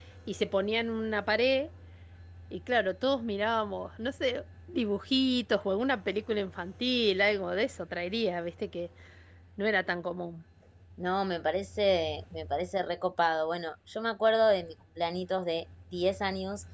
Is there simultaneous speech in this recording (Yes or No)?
No